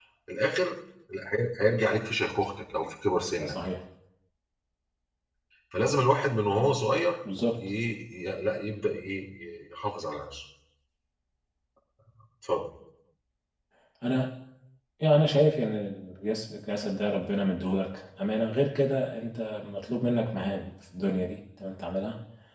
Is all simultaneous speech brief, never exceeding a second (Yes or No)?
Yes